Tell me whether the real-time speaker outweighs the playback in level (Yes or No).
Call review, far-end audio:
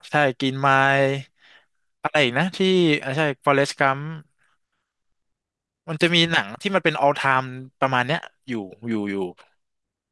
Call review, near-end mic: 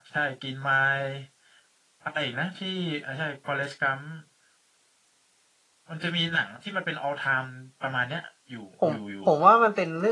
Yes